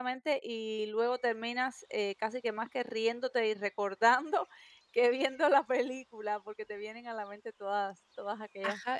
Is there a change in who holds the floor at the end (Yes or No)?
Yes